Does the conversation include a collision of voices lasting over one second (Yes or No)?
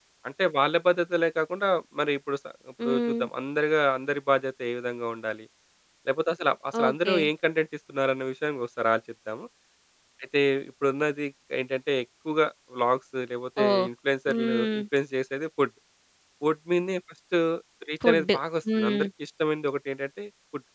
No